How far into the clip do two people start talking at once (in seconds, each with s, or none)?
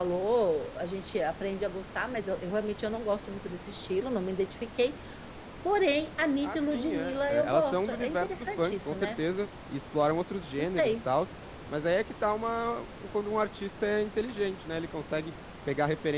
6.4 s